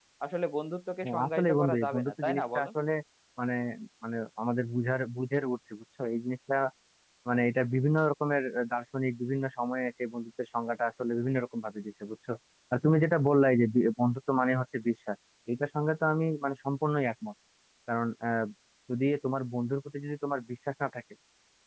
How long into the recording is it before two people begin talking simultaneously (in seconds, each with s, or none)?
1.0 s